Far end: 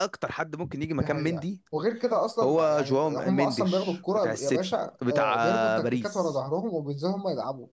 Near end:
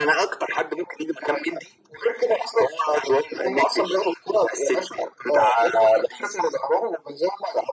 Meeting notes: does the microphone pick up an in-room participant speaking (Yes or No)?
No